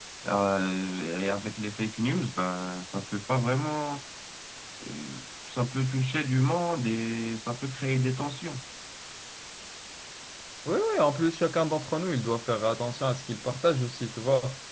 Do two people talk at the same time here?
No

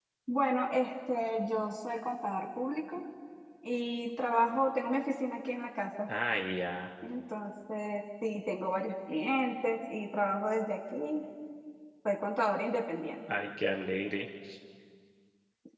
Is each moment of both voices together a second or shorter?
Yes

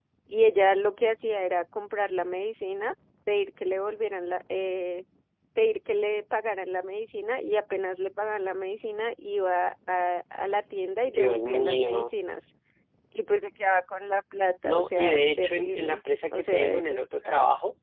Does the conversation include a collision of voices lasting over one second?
Yes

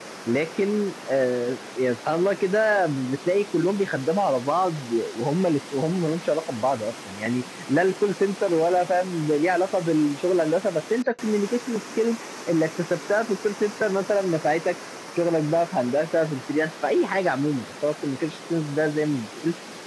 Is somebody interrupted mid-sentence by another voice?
No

